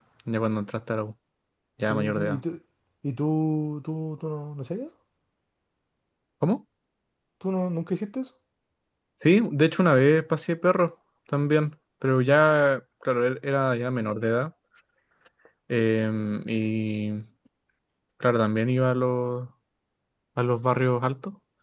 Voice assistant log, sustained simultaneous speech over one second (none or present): none